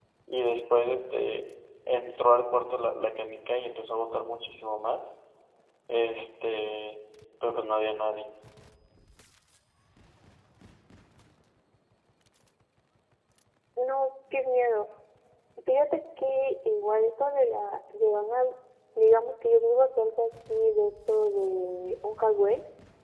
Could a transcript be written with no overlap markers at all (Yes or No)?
Yes